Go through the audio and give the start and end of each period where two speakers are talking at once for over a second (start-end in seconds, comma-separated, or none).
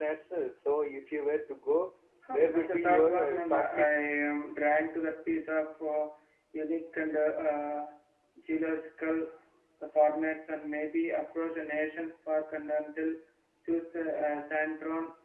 2.3-3.9